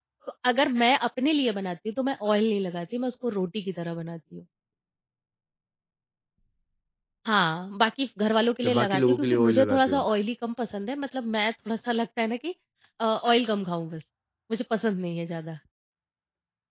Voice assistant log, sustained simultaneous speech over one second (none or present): present